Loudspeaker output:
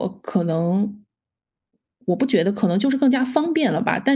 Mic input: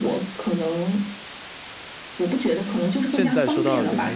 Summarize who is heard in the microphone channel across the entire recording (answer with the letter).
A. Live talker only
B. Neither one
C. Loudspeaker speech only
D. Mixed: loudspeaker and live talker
D